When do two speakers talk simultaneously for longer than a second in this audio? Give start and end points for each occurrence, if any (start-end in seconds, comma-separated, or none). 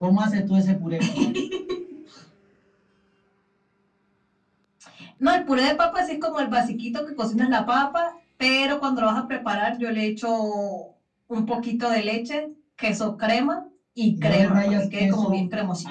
14.2-15.4